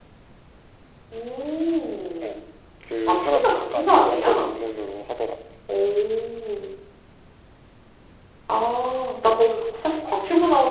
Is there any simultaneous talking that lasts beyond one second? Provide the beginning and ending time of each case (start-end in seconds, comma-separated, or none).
3.1-4.3